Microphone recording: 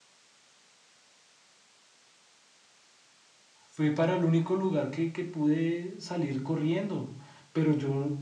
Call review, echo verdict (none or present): none